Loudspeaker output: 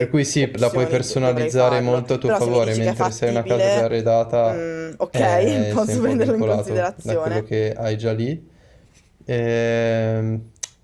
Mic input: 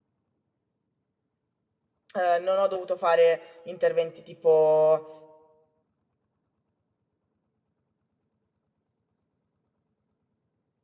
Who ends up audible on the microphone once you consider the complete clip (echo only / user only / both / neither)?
user only